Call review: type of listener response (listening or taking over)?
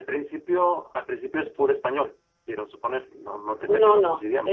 taking over